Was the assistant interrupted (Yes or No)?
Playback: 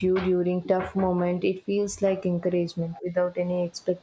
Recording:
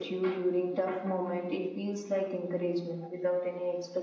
No